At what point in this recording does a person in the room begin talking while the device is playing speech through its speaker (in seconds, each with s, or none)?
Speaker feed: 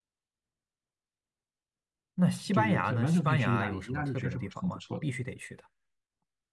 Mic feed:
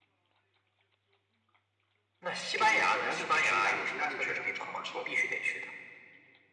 none